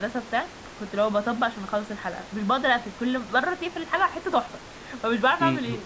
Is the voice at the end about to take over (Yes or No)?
Yes